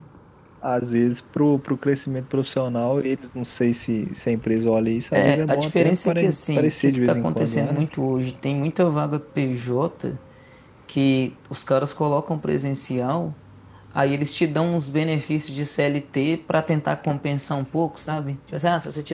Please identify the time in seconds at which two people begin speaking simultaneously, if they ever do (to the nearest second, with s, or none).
5 s